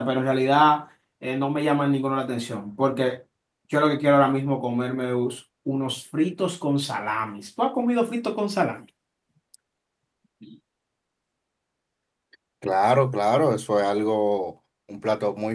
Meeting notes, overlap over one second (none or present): none